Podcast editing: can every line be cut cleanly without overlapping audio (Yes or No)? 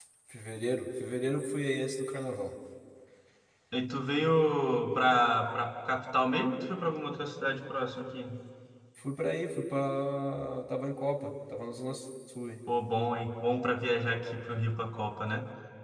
Yes